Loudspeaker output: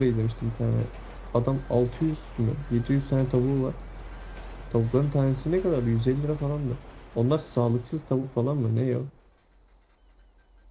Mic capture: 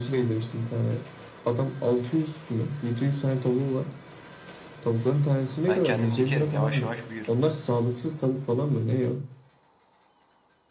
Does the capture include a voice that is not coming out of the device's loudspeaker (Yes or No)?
Yes